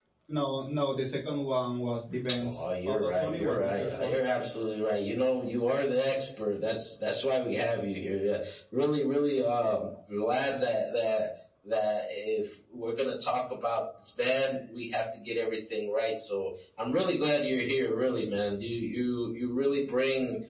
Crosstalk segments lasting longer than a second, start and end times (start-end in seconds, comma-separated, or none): 2.4-4.2